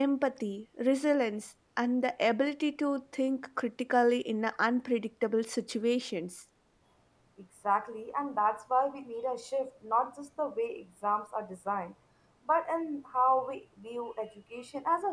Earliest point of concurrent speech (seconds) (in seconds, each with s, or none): none